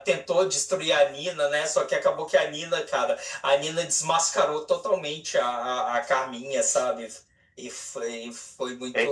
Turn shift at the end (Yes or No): Yes